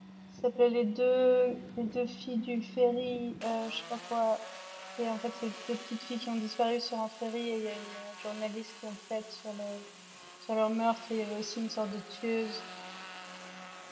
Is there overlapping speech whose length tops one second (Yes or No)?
No